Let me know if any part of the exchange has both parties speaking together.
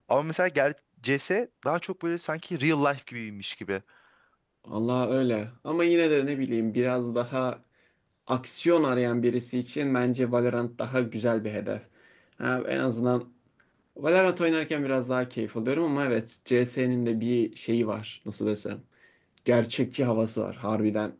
No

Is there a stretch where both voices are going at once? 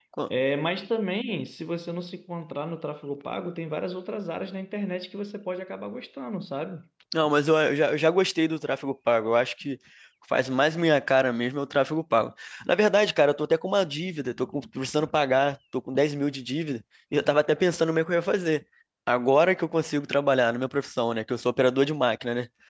No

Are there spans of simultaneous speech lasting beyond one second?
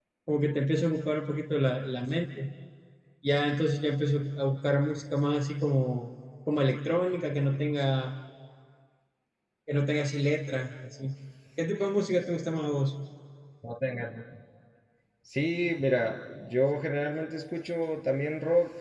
No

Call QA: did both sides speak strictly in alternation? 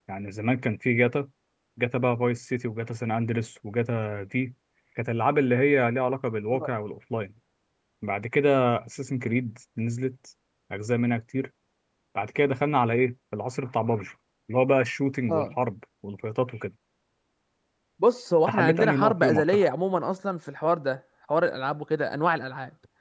No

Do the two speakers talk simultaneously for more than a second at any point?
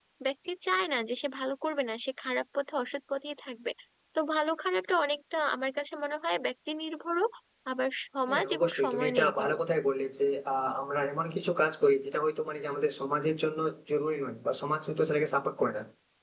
Yes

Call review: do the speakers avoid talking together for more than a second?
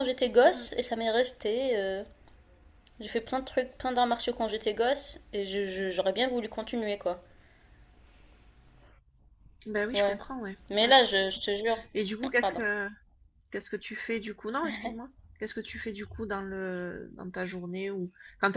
Yes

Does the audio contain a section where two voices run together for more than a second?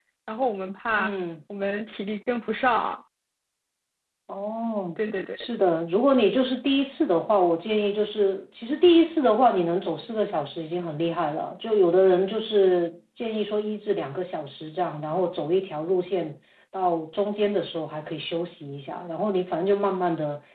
No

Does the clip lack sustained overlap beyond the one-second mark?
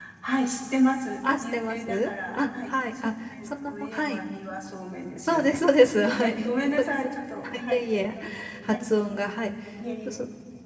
No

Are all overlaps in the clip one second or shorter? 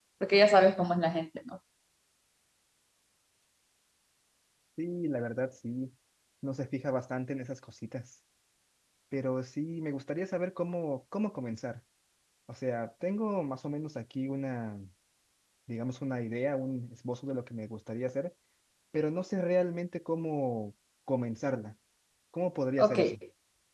Yes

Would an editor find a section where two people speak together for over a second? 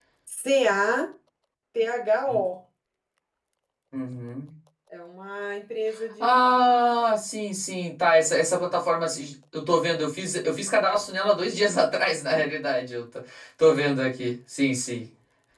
No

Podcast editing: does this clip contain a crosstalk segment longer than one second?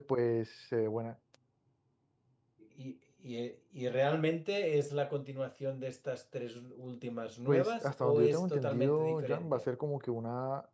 Yes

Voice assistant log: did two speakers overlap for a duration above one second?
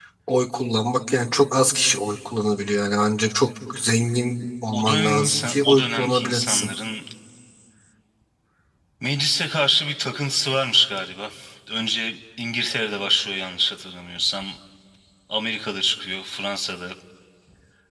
Yes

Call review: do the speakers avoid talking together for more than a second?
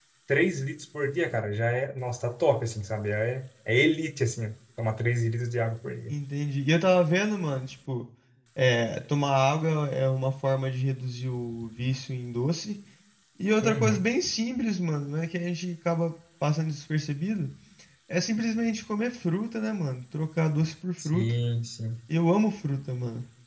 Yes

